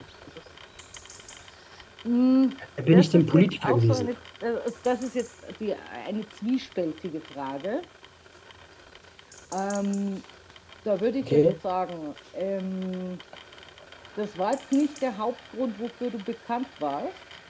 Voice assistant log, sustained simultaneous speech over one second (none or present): present